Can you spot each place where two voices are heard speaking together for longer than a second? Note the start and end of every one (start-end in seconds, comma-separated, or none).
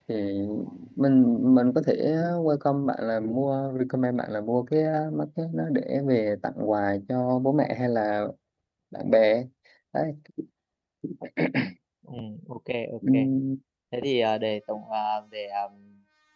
none